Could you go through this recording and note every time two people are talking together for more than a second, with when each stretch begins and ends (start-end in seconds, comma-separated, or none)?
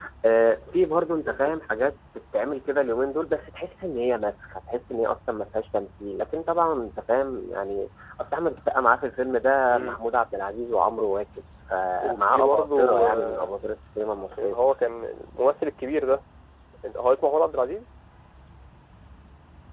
12.0-13.6